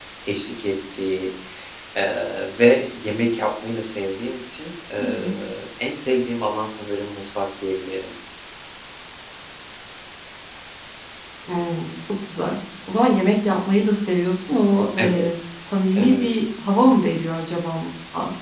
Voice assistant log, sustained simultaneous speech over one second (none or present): none